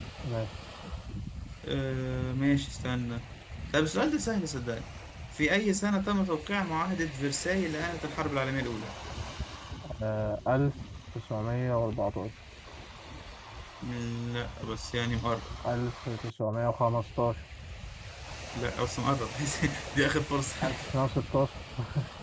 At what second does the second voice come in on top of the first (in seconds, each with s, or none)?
none